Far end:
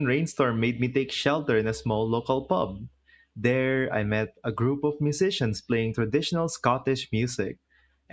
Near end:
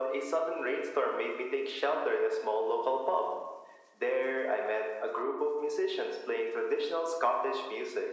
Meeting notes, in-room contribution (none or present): none